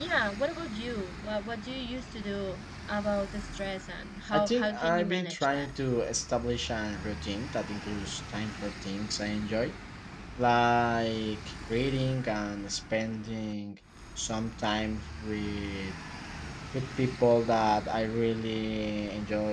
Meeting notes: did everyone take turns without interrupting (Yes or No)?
No